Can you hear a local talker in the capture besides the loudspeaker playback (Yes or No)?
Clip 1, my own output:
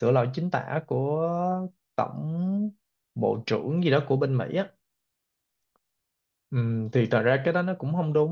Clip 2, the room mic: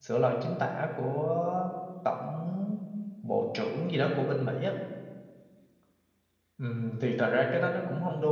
No